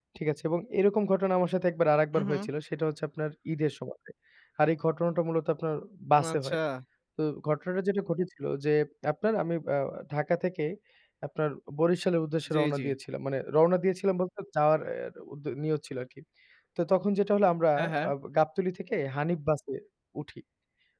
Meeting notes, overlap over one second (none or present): none